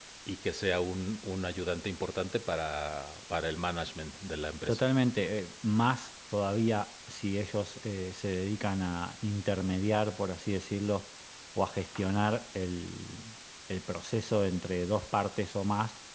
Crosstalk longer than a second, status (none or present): none